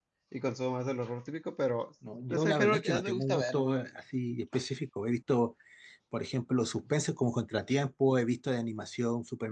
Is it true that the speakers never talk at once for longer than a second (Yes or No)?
No